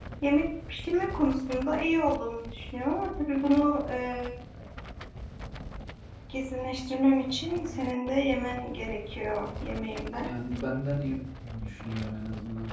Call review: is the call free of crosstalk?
Yes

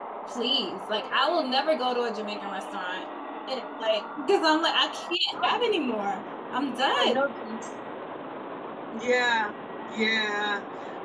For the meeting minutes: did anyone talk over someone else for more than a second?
No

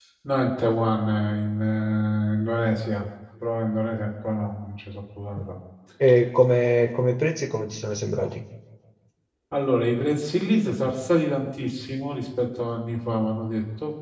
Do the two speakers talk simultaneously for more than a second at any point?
No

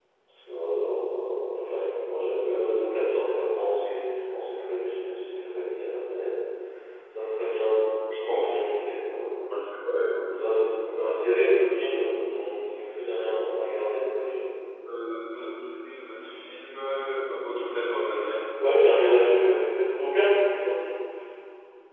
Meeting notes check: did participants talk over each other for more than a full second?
No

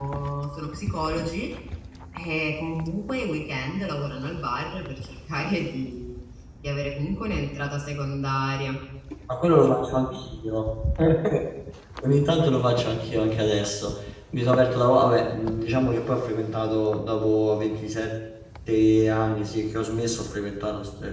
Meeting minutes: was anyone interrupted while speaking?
No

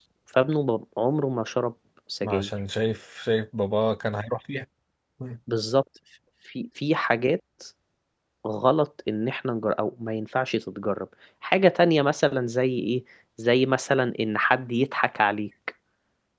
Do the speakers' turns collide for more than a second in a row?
No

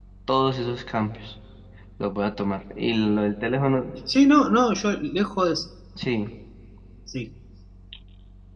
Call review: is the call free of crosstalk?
Yes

